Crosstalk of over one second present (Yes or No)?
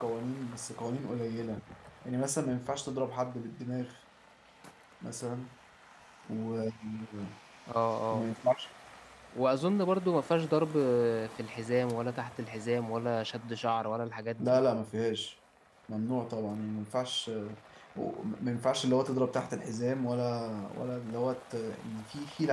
No